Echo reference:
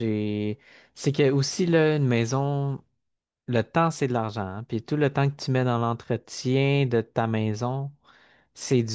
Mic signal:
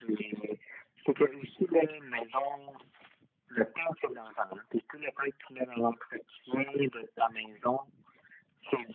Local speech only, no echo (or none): none